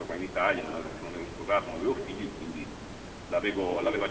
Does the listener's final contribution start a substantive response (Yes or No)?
No